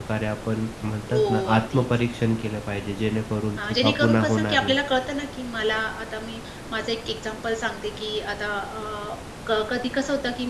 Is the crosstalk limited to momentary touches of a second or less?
No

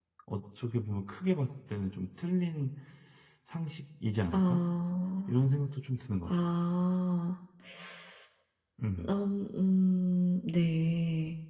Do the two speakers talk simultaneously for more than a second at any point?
No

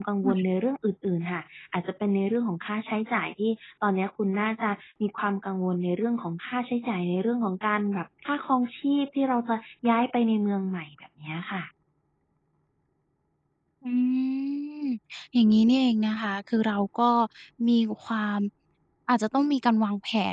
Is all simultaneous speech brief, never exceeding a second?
Yes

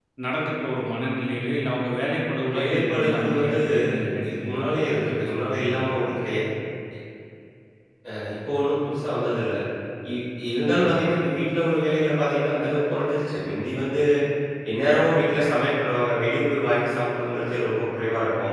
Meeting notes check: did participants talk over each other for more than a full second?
Yes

